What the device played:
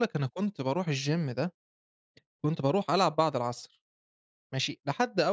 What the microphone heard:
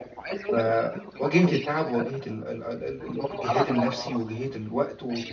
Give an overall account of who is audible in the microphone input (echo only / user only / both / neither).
both